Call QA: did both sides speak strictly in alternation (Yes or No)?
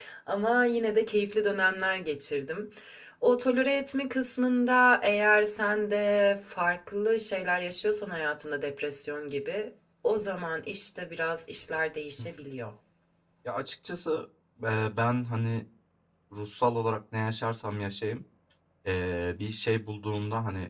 Yes